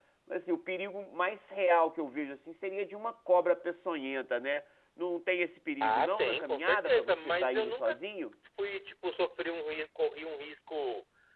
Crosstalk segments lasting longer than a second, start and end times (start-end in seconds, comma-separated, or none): 5.8-8.0